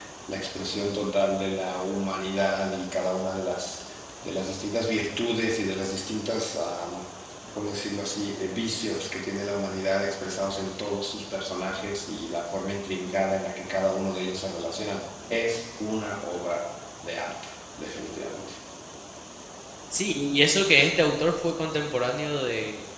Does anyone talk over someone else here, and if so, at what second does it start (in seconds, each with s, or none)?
none